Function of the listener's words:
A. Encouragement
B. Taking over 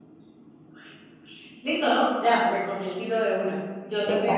A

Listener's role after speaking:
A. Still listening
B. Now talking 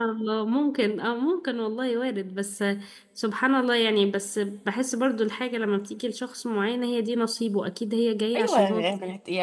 B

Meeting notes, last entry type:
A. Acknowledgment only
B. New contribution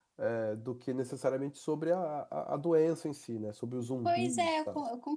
B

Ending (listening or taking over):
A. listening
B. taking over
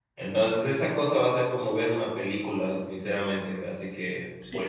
B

